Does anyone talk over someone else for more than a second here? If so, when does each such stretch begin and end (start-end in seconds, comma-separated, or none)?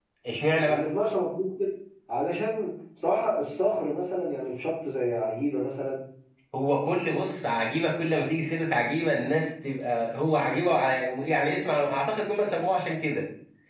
none